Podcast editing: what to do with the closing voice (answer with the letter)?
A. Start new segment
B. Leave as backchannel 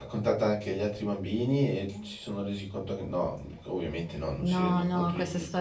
A